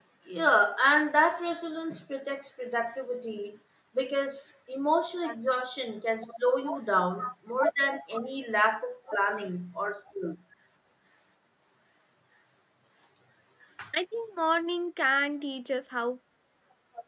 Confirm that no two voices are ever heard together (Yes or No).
Yes